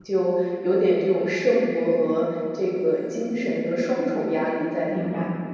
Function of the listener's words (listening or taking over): taking over